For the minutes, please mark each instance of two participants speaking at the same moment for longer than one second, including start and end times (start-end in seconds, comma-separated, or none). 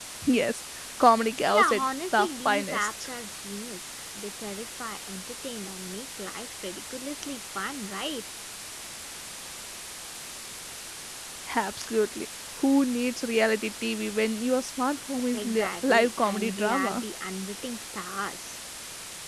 1.5-2.9, 15.3-17.0